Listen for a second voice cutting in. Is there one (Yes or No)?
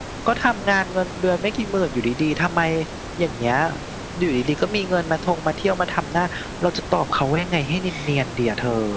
No